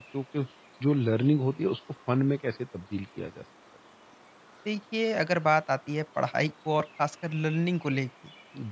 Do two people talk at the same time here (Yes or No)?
No